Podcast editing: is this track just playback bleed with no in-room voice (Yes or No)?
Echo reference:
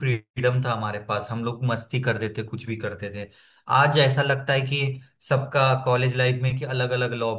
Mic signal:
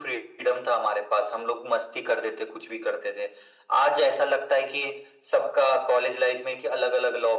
Yes